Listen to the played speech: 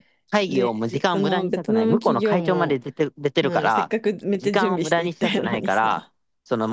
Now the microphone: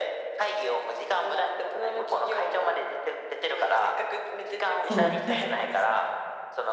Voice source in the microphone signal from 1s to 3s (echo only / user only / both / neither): echo only